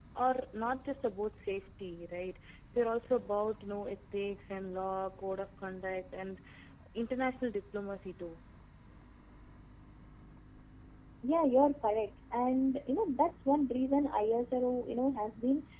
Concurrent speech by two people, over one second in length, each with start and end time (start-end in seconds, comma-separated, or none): none